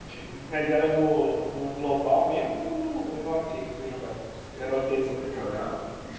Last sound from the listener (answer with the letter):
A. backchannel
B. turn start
B